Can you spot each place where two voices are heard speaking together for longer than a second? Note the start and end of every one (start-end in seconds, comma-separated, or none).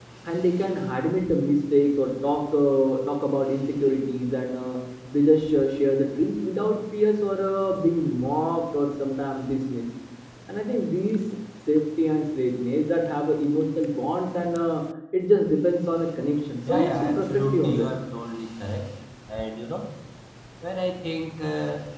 16.7-17.9